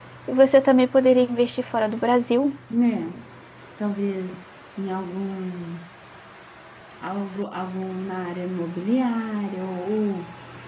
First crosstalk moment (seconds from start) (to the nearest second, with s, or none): none